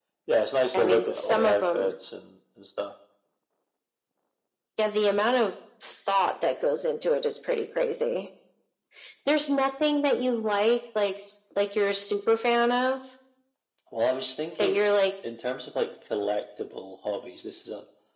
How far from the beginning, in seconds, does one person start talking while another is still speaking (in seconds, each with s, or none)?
0.7 s